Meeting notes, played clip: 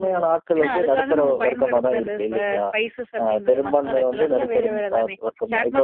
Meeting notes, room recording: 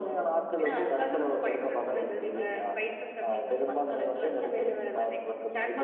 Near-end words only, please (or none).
none